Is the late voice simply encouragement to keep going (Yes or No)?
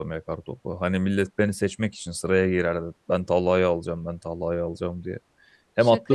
Yes